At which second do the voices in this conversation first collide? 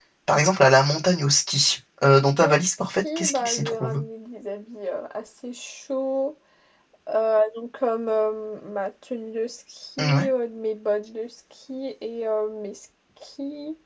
2.4 s

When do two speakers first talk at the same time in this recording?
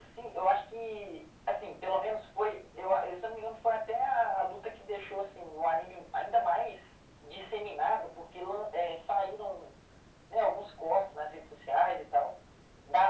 none

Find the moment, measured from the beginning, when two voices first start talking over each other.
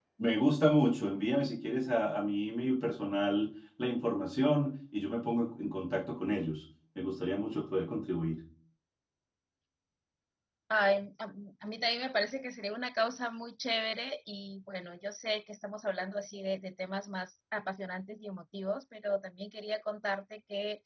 none

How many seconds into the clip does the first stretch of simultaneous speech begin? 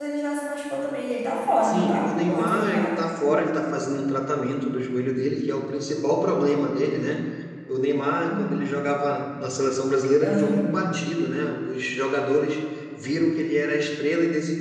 1.6 s

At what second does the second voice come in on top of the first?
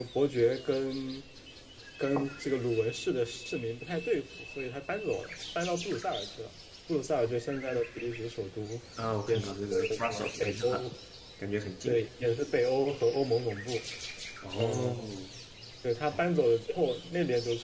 9.3 s

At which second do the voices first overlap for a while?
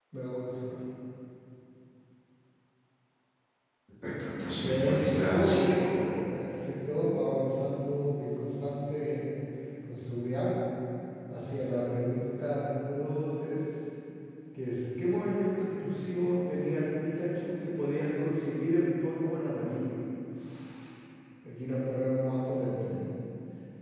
4.5 s

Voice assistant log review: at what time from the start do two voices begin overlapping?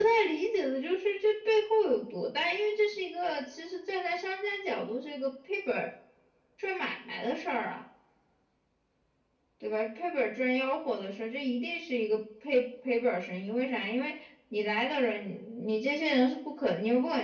none

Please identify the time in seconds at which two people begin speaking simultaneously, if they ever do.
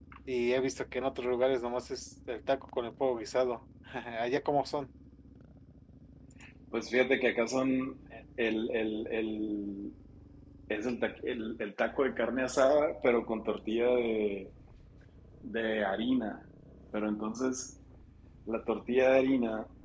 none

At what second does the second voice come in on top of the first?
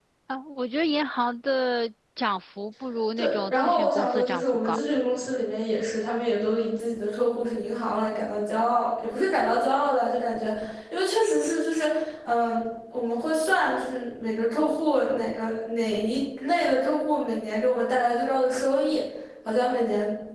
3.2 s

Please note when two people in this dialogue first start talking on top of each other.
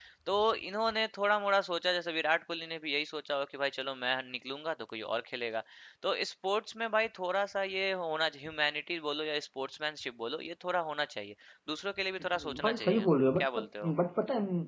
12.6 s

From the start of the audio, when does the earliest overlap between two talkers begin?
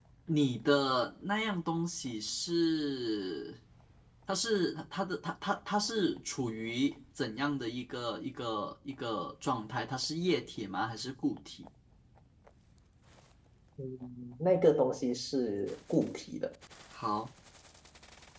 none

